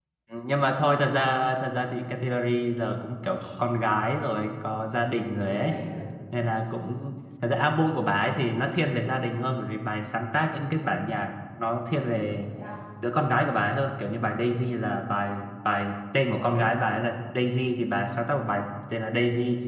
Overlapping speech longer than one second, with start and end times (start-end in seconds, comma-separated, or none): none